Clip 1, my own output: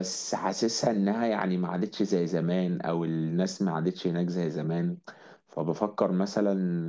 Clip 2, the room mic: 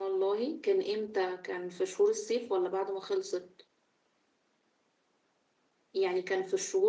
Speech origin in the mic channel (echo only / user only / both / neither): user only